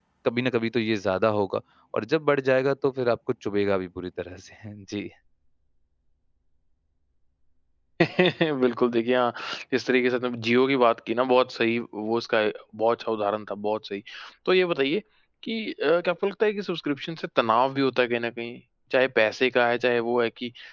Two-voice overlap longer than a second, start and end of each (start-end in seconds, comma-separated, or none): none